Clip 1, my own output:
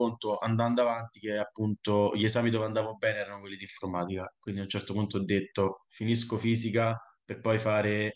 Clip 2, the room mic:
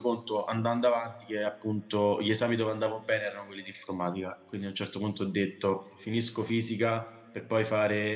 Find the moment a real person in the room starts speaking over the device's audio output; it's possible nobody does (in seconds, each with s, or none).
none